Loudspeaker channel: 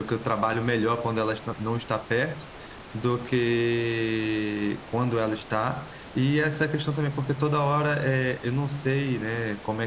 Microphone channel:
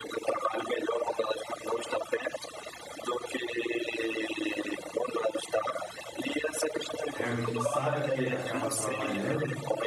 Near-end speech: present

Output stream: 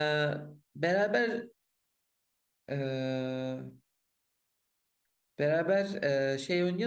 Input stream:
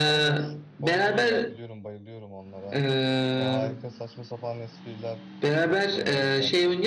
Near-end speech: present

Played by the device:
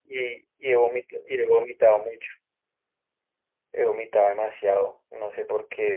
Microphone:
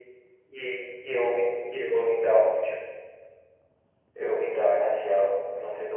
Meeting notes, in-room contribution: none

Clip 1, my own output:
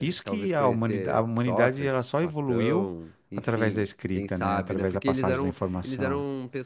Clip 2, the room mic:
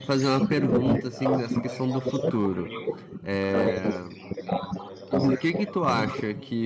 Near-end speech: present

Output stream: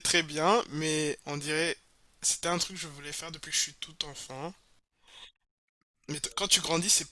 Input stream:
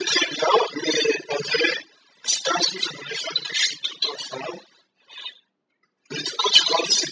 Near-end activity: none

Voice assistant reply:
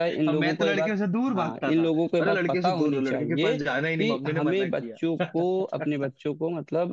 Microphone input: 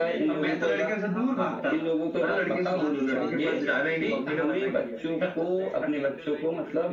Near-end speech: present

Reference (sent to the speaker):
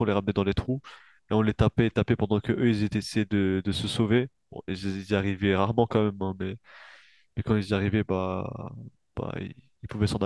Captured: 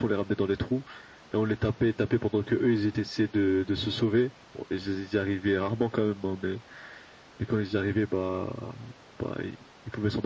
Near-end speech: none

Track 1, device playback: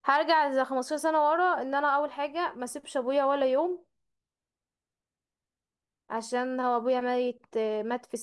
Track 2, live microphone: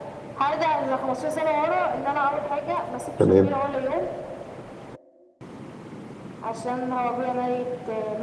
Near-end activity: present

